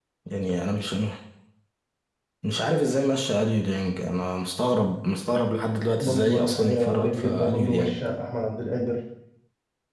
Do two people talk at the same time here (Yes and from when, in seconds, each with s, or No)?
Yes, from 6.0 s